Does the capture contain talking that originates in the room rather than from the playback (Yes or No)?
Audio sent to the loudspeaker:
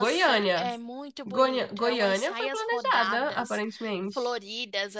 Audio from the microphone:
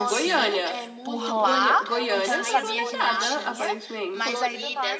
Yes